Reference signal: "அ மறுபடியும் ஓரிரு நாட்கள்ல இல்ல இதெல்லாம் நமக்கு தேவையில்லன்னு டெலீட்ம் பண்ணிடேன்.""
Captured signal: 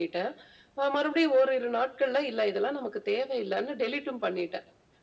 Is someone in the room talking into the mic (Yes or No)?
No